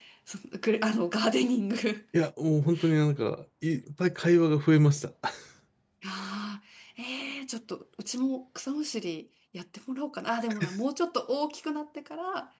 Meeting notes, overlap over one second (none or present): none